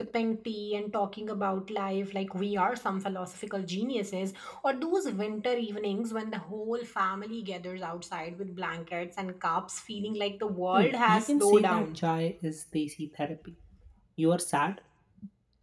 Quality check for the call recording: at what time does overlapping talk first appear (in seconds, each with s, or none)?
10.7 s